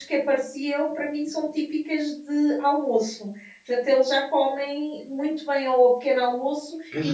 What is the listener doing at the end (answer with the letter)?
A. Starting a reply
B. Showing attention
A